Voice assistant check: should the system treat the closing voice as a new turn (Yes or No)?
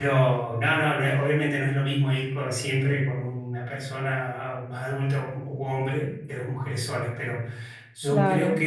No